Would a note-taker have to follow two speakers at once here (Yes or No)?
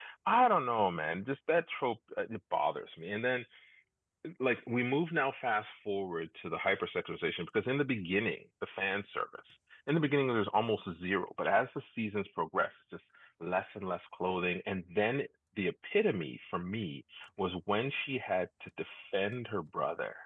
No